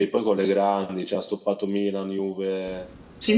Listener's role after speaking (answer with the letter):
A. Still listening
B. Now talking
B